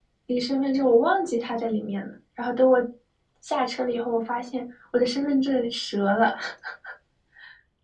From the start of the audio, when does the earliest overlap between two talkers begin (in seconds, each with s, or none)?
none